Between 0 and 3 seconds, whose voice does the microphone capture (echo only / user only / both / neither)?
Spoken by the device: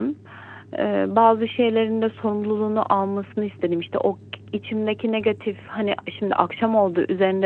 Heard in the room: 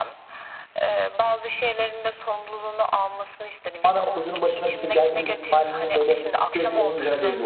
echo only